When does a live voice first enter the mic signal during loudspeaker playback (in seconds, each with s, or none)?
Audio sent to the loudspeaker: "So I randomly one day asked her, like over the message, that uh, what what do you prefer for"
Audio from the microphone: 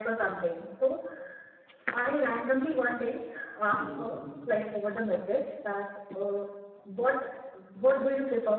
3.8 s